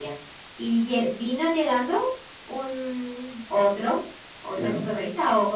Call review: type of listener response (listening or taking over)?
listening